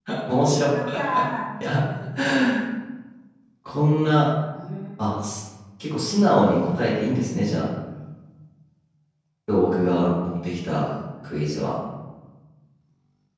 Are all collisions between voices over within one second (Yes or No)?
No